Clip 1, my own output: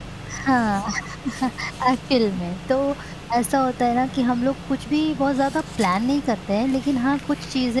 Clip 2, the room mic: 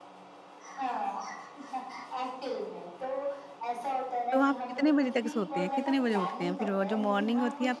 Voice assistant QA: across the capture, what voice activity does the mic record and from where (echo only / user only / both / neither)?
both